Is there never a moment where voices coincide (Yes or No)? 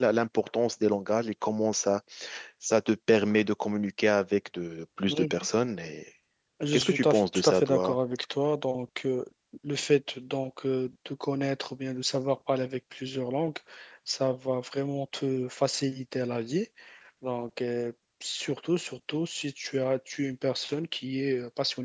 No